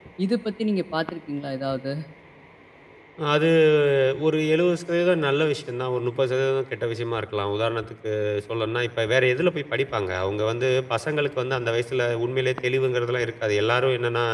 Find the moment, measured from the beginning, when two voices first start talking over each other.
none

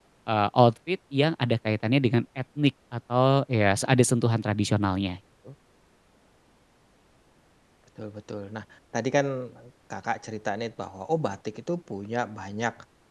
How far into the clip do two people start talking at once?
none

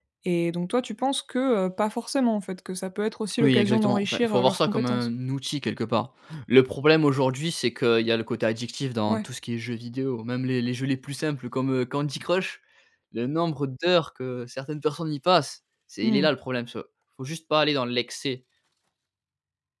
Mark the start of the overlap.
3 s

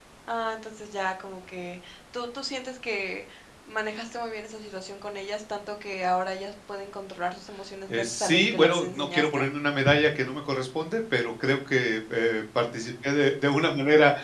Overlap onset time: 8 s

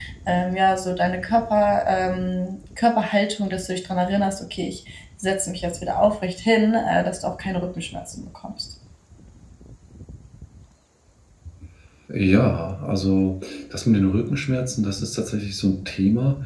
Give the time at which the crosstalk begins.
none

